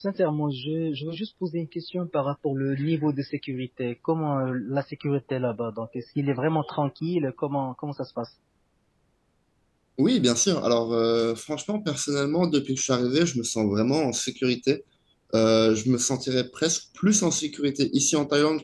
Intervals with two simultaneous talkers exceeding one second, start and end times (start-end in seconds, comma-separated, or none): none